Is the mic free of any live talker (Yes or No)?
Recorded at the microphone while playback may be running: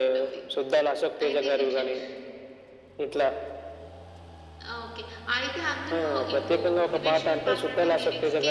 No